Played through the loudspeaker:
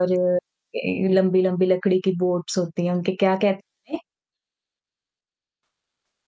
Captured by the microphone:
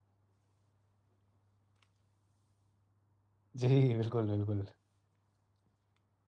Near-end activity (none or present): present